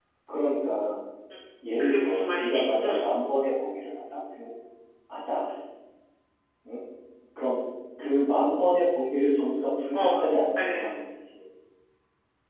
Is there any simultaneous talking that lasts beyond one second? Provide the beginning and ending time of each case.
1.8-3.0

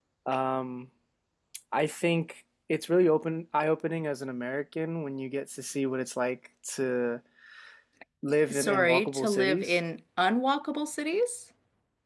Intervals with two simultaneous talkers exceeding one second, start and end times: 8.5-9.8

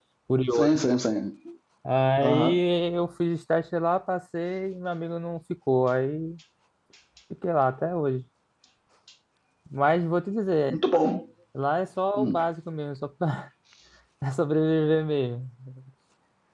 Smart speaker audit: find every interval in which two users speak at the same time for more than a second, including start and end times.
none

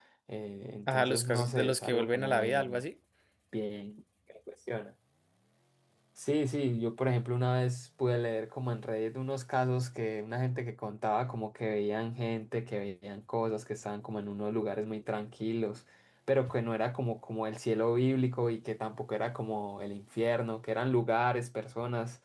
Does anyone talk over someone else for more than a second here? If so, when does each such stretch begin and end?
0.9-2.8

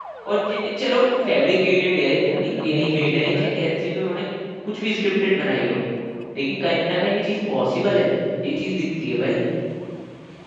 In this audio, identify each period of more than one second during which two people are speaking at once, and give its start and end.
2.0-3.5

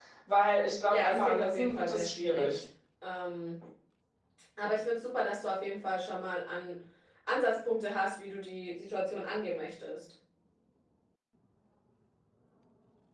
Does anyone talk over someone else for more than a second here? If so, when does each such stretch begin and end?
0.9-2.6

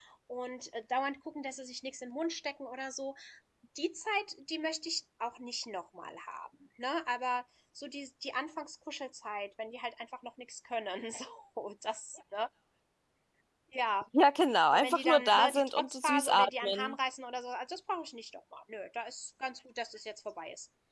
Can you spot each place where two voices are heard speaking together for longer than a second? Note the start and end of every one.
14.7-16.9

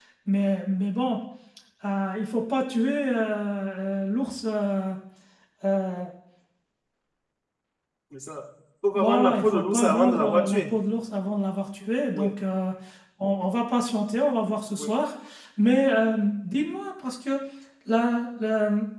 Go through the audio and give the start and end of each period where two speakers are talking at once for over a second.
8.9-10.7

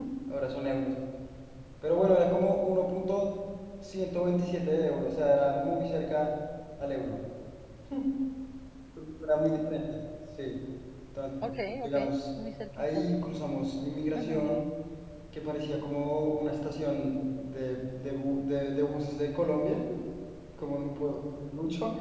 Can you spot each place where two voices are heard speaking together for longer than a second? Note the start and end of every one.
none

